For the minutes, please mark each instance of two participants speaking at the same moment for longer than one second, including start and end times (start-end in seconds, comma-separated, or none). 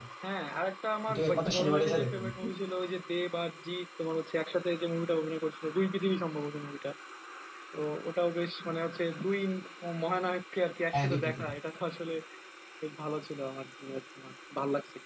1.1-2.3